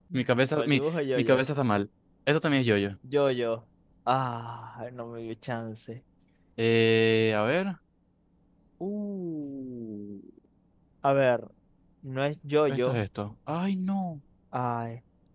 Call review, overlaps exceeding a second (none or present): none